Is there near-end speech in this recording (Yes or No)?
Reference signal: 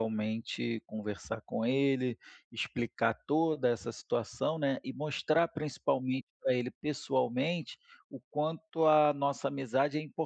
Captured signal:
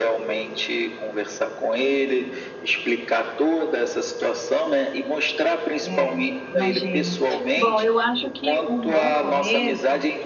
Yes